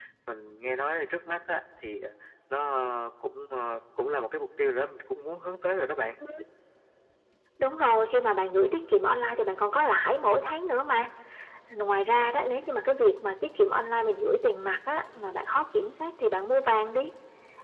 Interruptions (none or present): none